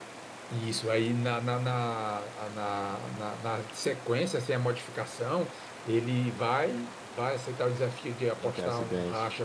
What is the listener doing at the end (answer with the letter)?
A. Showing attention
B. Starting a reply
A